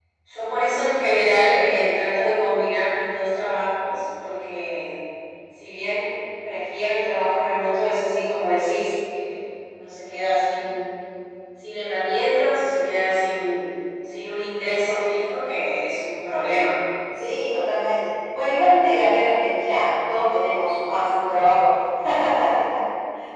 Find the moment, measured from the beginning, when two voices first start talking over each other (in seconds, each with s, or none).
none